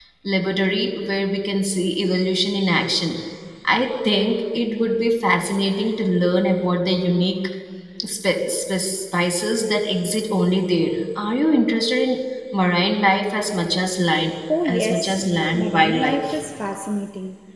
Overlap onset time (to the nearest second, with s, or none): 14 s